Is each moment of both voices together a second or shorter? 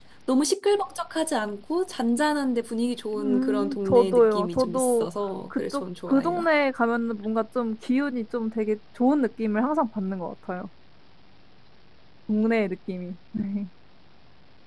No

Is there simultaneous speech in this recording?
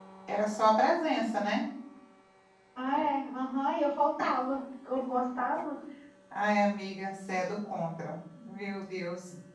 No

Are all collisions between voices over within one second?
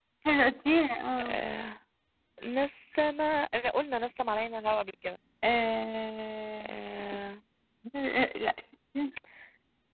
Yes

